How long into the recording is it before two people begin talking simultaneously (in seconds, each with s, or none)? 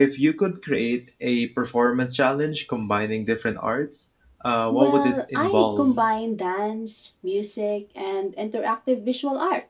4.7 s